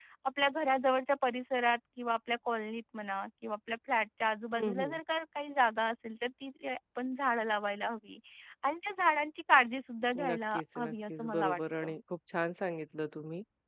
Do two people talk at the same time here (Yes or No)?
Yes